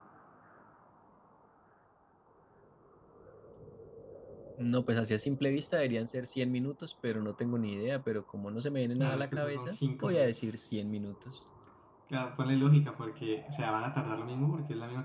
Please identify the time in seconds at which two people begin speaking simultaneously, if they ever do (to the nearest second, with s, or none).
9 s